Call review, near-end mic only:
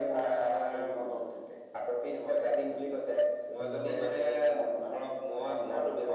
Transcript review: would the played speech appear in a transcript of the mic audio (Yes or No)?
Yes